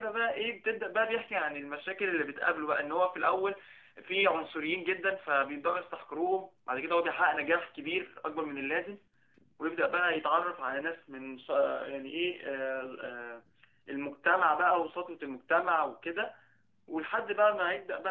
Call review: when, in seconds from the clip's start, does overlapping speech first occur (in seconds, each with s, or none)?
none